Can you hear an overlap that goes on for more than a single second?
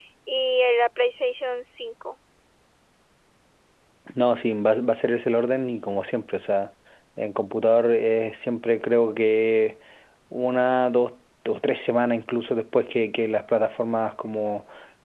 No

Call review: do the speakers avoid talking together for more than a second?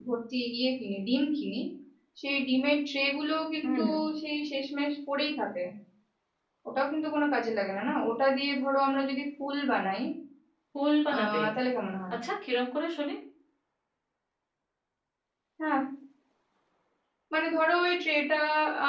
Yes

